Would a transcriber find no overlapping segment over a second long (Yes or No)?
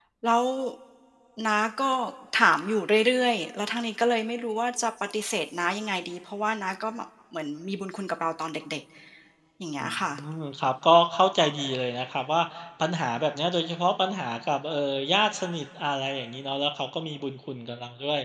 Yes